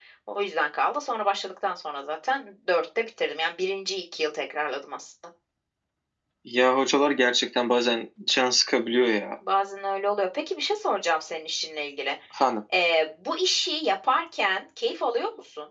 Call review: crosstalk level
none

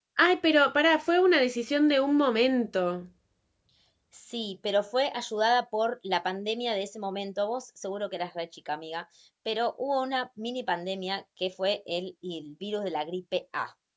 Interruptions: none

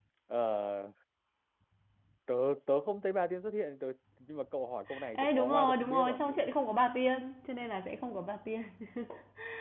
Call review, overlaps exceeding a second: present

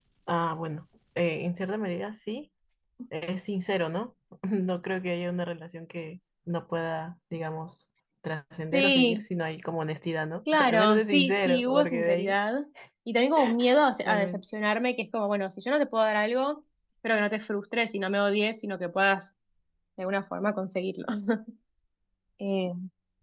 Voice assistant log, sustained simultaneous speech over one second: present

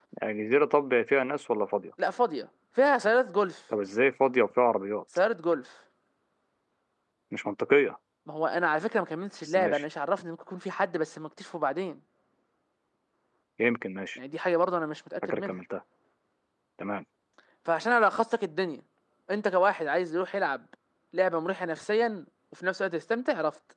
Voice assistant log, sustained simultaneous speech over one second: none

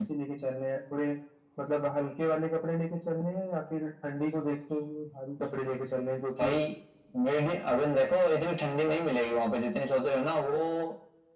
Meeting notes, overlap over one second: none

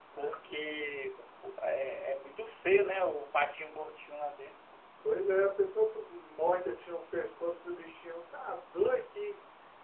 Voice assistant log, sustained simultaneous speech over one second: none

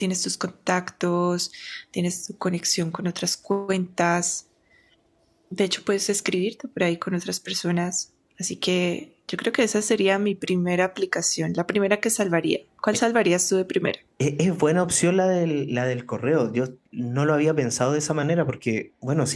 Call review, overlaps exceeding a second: none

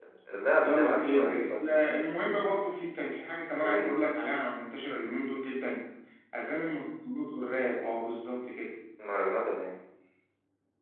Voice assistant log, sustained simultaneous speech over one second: present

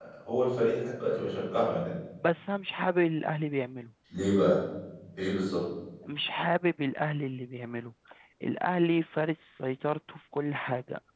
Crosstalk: none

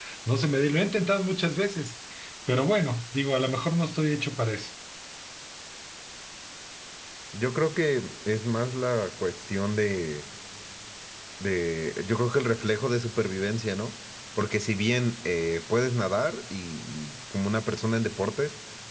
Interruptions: none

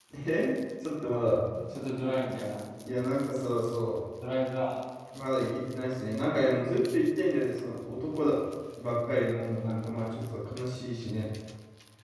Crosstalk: none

